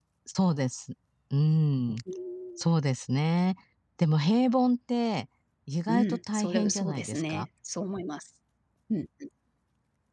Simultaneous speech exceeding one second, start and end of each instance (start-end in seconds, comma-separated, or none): 5.9-7.4